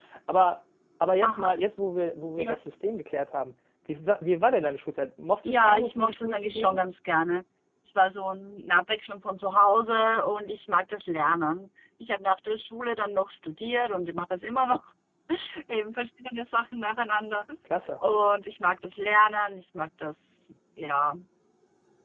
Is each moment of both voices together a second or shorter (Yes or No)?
No